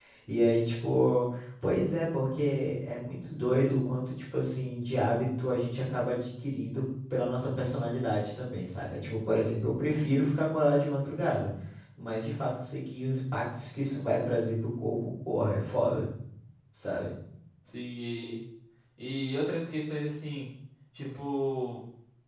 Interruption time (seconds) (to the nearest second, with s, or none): none